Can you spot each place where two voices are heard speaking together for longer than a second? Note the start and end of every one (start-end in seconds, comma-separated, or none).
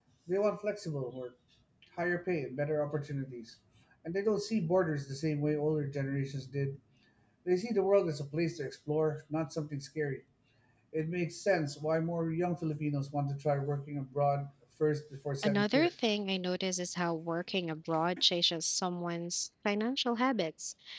none